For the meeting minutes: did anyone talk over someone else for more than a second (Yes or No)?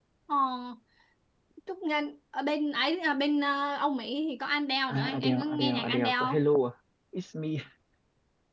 Yes